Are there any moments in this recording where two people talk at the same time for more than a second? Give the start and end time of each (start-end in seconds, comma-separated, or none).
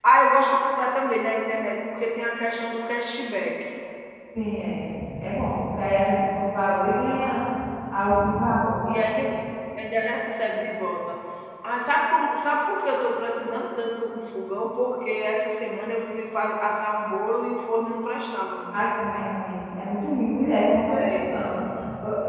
none